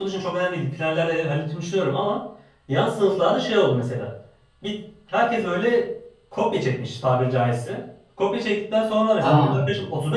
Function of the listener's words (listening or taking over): listening